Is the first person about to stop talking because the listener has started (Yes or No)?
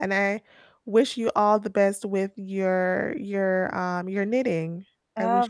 Yes